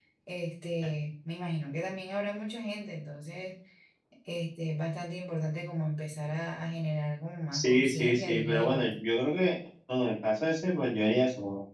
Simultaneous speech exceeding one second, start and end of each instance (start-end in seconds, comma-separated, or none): 7.5-8.9